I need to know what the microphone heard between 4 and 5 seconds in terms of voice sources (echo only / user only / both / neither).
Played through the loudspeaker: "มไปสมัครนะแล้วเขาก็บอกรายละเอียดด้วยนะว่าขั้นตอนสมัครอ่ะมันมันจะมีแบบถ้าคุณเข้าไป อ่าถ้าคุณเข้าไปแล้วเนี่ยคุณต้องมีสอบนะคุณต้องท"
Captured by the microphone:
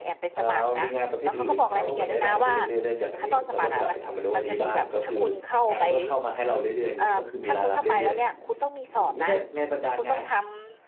both